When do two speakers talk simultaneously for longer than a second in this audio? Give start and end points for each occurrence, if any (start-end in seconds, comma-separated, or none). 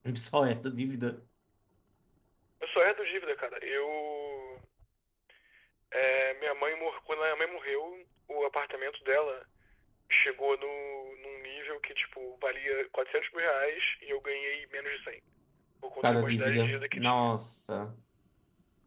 16.0-17.3